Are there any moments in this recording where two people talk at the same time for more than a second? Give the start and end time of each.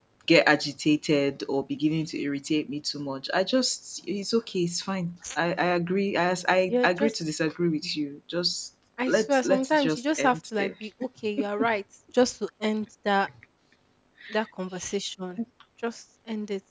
9.1-10.7

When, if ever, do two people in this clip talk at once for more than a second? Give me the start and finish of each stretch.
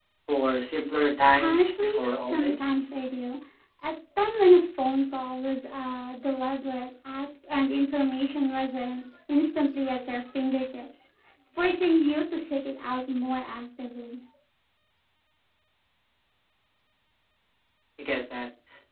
1.4-2.9

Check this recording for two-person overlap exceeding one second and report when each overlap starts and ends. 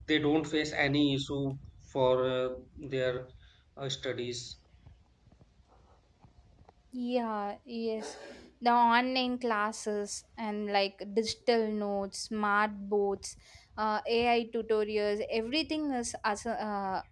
none

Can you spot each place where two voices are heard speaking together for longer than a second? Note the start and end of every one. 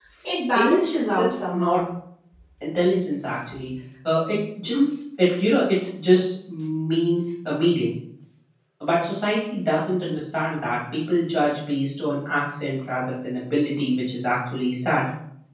0.5-1.8

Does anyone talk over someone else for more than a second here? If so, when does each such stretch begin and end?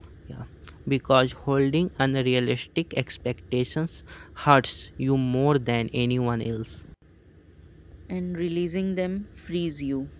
none

